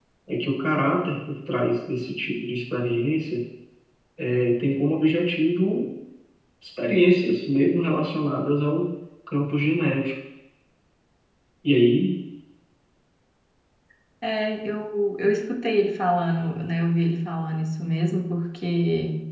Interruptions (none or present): none